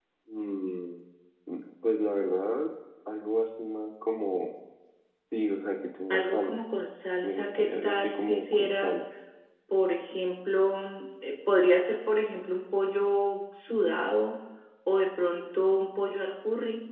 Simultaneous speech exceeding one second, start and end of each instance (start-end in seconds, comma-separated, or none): 7.2-9.0